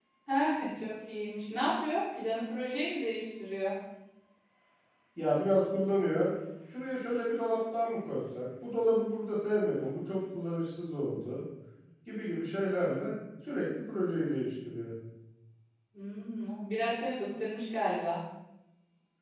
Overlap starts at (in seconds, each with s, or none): none